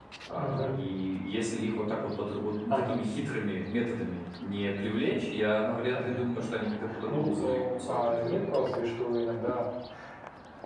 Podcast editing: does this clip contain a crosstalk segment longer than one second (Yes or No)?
Yes